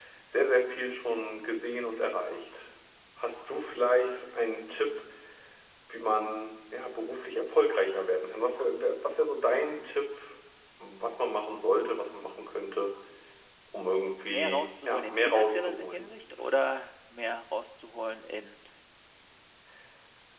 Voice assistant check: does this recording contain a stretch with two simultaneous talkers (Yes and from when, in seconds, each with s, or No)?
Yes, from 14.2 s